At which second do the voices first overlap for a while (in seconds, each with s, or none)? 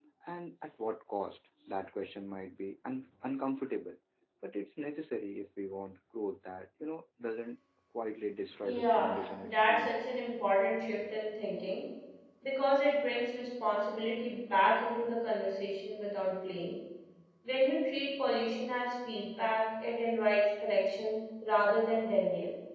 8.6 s